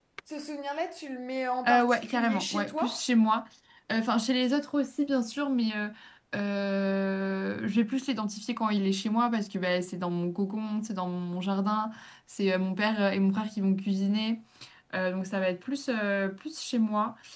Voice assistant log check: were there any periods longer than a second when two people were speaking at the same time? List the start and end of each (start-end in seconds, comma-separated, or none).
1.6-3.0